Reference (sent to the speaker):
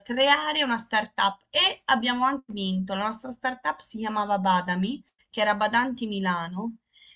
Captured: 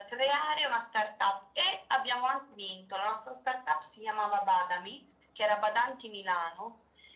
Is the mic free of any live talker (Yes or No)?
Yes